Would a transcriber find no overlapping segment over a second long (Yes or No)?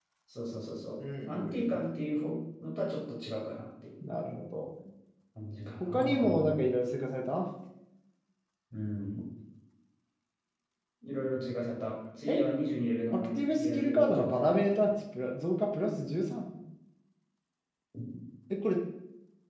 No